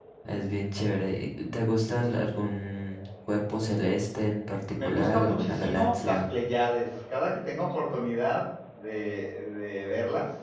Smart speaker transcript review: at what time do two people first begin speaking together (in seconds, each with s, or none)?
4.7 s